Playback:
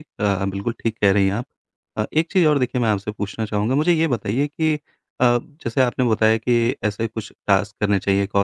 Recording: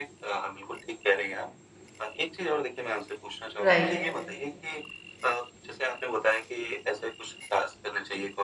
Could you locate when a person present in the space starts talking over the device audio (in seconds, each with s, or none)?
3.6 s